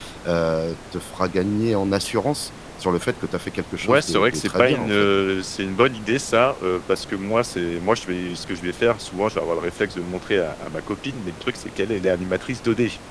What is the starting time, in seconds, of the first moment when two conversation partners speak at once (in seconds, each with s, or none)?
3.8 s